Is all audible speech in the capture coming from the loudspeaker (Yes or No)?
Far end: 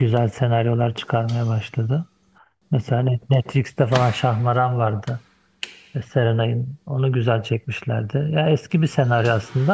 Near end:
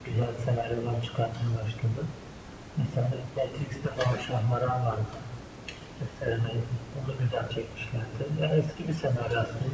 Yes